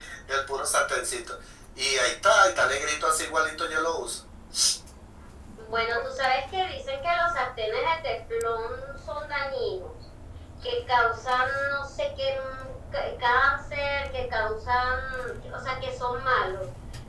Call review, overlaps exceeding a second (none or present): none